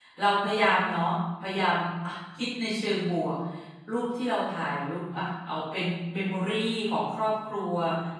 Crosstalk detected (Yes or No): No